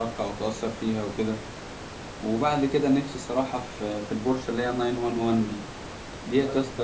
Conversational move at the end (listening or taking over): listening